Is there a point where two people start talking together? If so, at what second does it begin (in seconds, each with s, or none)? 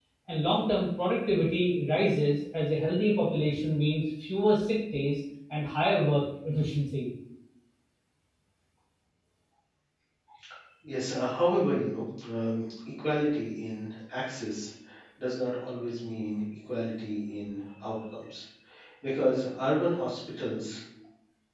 none